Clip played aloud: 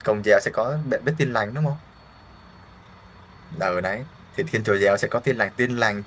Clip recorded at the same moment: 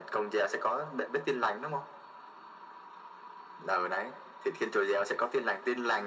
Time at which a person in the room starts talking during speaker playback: none

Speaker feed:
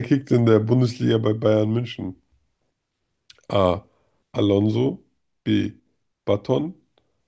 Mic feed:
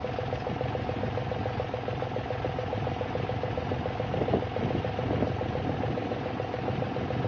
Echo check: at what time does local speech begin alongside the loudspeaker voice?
none

